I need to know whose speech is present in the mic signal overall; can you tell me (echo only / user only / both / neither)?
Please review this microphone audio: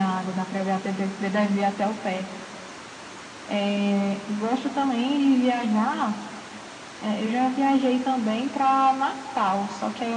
echo only